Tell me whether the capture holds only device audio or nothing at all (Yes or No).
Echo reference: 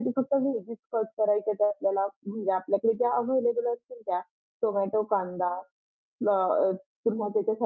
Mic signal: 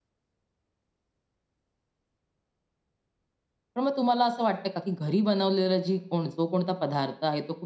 No